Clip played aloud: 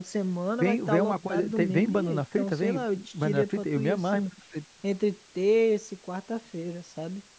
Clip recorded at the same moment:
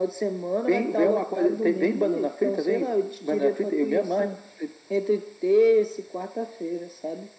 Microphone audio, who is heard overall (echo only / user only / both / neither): echo only